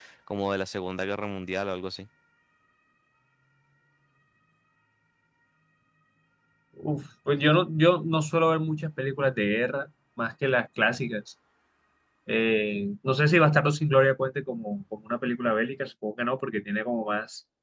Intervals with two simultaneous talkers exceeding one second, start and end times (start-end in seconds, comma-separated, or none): none